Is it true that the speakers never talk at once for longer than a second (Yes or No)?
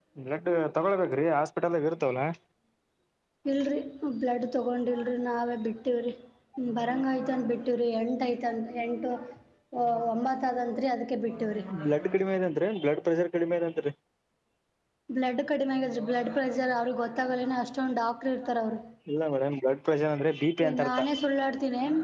Yes